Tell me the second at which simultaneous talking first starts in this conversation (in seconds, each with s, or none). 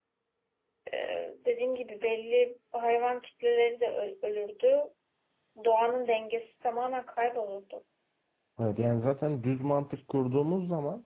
none